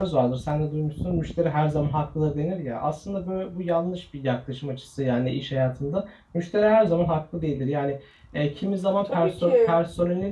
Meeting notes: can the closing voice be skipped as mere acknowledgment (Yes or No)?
Yes